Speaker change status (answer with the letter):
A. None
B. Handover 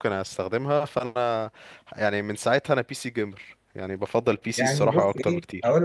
B